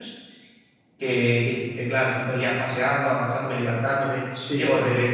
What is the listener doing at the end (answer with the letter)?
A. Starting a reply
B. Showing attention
B